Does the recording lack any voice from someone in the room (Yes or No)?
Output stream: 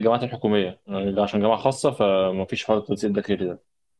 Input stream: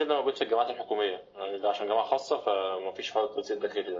Yes